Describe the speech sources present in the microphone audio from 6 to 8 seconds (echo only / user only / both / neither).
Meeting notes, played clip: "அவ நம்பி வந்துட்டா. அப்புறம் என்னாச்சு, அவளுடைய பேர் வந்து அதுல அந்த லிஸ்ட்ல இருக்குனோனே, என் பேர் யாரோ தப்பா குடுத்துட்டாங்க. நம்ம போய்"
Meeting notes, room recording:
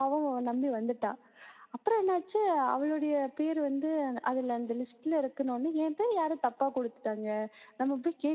echo only